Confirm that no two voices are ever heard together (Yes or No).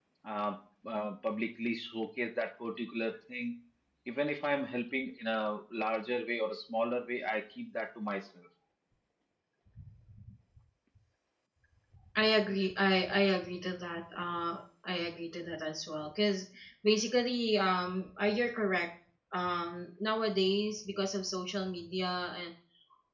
Yes